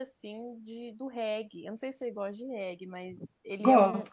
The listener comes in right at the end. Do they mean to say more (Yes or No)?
No